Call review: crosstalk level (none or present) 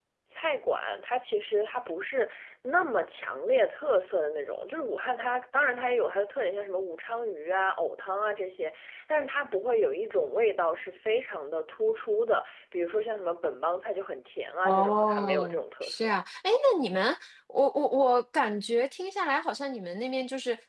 present